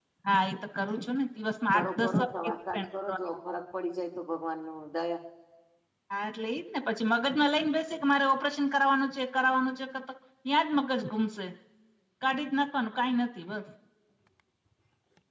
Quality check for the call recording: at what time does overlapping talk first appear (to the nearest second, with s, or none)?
2 s